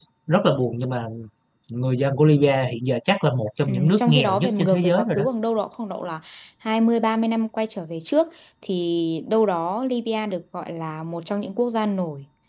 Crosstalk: present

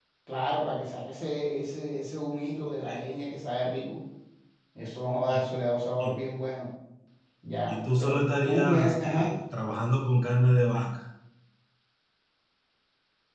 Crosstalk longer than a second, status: present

